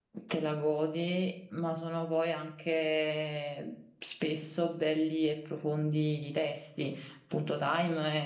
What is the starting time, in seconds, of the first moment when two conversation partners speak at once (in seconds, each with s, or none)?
none